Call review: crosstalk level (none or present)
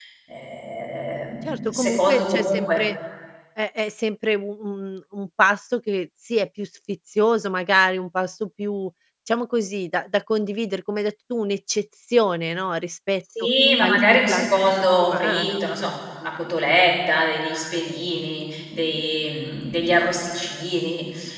present